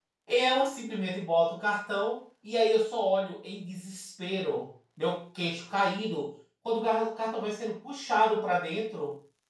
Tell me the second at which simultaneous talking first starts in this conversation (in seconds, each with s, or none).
none